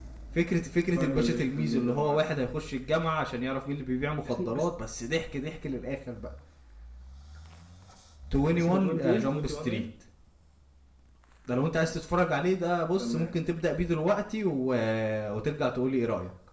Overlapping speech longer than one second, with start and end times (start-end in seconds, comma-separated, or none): 0.9-2.2, 8.6-9.9